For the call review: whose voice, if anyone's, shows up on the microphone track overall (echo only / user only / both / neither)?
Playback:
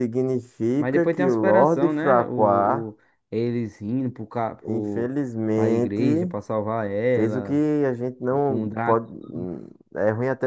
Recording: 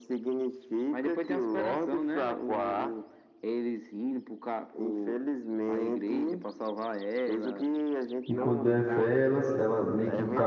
both